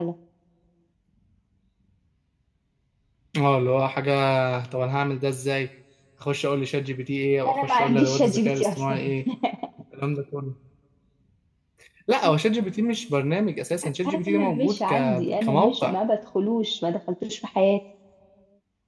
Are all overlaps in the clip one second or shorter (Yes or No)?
No